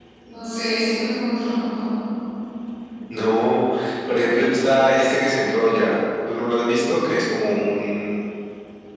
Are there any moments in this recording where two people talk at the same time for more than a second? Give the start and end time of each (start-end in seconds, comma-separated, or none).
none